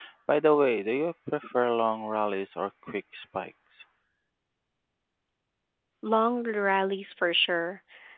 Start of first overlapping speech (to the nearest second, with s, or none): none